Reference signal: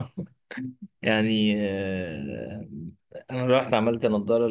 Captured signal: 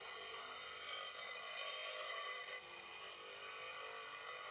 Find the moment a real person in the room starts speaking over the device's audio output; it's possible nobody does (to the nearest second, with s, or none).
none